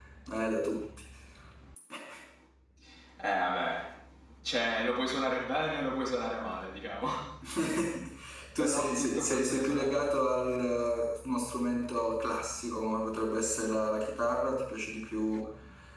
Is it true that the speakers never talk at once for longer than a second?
No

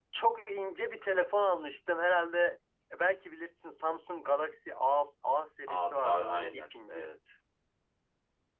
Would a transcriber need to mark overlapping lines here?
Yes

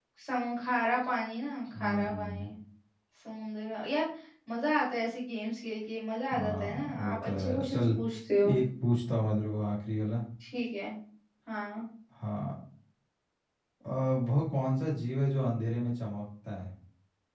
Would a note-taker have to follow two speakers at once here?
Yes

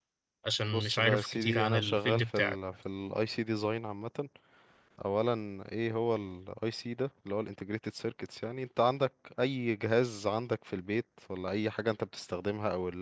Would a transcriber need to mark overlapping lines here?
Yes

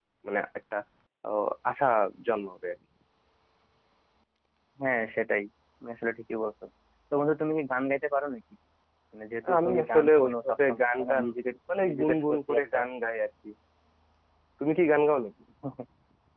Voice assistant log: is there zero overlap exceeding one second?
No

